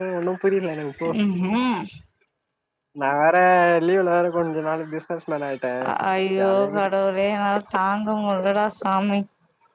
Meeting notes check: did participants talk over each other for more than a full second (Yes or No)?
No